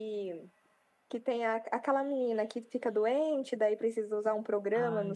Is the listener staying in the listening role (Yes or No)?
Yes